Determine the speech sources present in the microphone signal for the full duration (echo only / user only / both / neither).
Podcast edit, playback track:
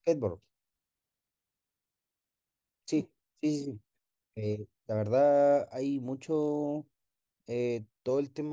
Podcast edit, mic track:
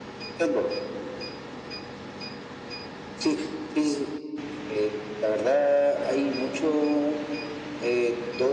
echo only